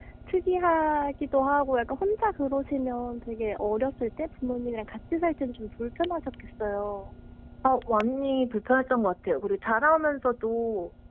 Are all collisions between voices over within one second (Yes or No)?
Yes